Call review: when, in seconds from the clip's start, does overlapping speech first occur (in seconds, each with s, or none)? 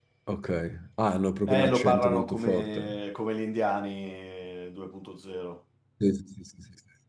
1.5 s